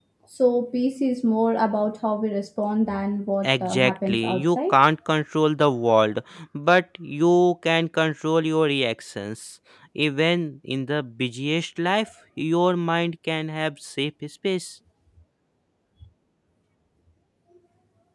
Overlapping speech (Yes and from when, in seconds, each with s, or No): Yes, from 3.4 s